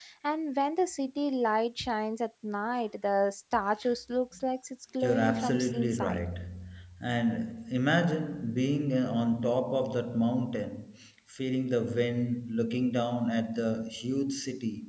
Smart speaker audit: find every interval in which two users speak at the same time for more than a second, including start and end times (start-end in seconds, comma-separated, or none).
5.0-6.2